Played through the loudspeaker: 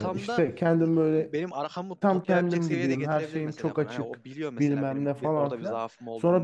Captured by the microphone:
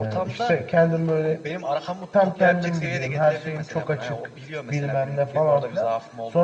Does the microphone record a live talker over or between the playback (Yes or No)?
No